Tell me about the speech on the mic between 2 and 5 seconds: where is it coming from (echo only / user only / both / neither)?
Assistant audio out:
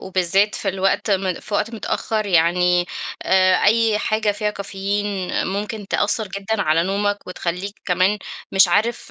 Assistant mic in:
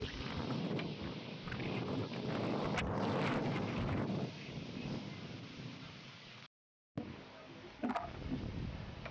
neither